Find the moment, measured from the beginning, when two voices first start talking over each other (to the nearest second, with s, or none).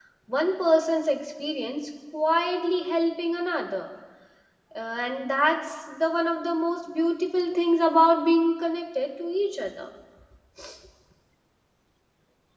none